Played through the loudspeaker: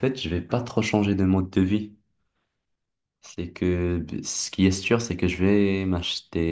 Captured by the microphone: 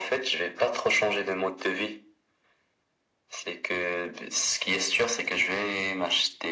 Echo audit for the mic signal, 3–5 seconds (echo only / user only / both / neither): echo only